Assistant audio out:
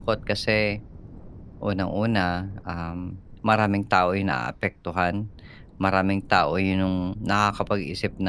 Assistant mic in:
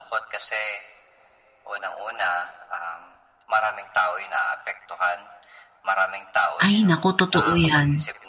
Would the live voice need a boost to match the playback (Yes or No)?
No